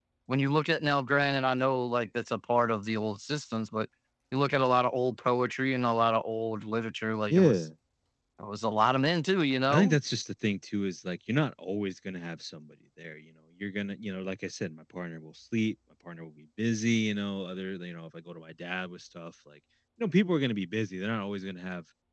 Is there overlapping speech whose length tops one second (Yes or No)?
No